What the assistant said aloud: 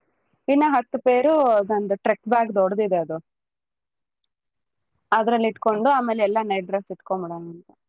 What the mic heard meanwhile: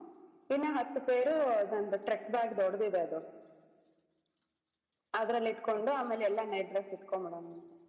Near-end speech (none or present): none